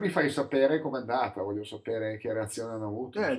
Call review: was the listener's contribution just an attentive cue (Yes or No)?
No